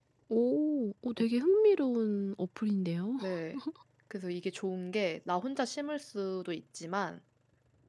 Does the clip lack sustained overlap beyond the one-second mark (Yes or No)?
Yes